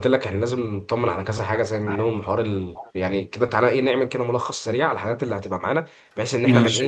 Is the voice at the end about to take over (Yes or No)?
No